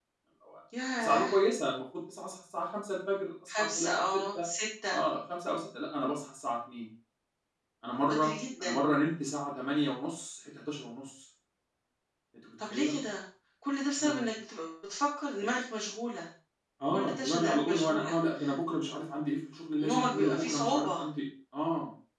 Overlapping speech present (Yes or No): Yes